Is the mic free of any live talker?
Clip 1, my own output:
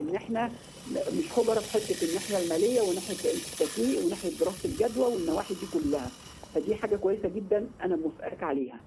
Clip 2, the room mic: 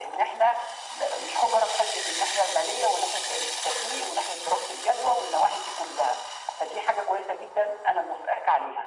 Yes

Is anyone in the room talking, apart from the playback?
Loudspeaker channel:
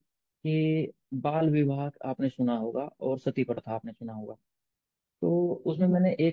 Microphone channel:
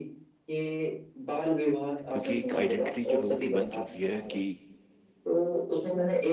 Yes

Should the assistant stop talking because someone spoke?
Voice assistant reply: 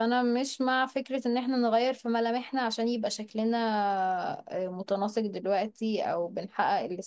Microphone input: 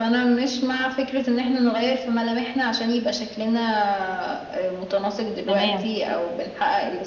Yes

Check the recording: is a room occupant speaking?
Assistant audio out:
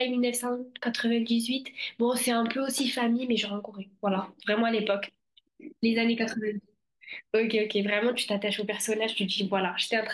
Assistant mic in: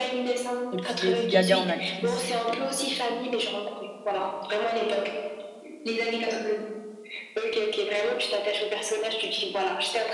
Yes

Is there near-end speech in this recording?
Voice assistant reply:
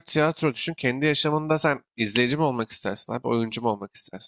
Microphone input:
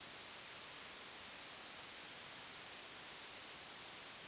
No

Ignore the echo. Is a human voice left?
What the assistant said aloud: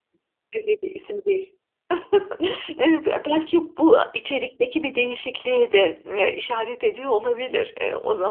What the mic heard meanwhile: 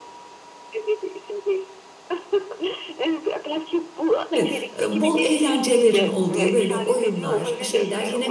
Yes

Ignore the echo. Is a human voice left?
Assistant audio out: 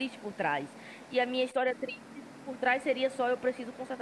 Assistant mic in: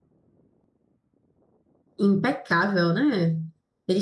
Yes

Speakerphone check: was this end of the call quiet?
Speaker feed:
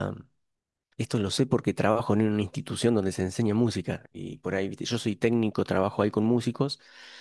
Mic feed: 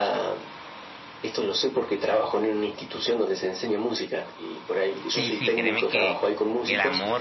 No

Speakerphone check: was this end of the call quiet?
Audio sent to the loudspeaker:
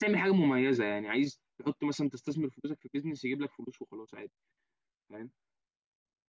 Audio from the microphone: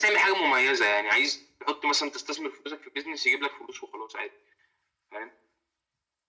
Yes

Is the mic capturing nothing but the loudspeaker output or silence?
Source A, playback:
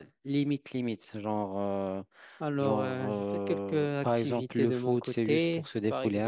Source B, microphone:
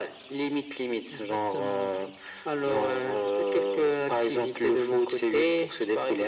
No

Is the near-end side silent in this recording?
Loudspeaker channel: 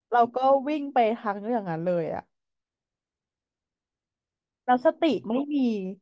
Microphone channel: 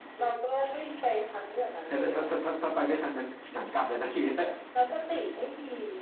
No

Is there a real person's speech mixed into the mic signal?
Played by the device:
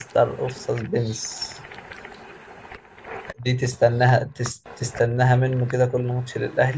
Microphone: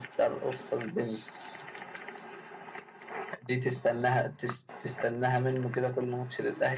No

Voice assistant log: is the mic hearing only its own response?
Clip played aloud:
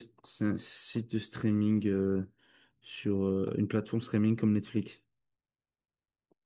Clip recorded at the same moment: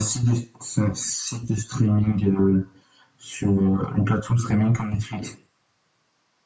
Yes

